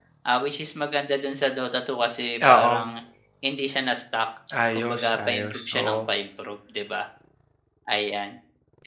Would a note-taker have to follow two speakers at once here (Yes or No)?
Yes